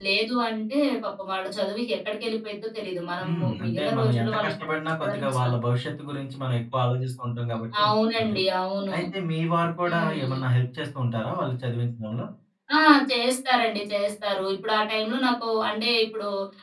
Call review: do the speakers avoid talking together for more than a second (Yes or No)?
No